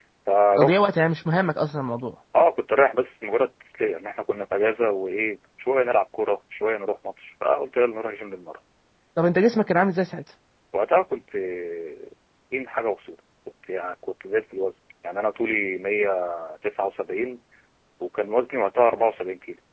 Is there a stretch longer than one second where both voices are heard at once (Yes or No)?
No